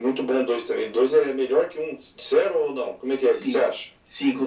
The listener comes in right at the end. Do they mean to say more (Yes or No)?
Yes